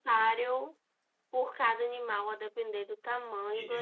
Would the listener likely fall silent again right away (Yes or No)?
No